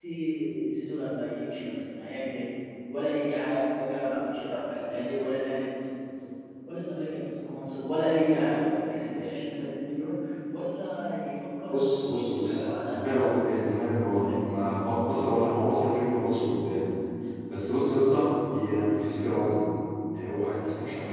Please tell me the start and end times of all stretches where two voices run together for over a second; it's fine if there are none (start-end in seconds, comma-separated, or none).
11.7-13.4